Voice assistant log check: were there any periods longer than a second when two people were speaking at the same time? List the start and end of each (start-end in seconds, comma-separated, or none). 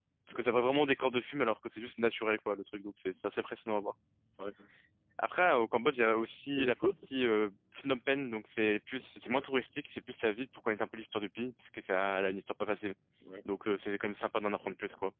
none